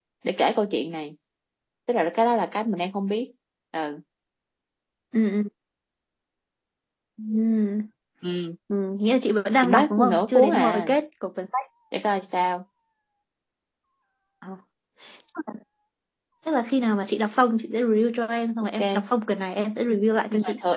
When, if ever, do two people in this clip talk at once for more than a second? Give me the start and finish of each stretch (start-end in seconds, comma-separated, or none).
9.6-10.9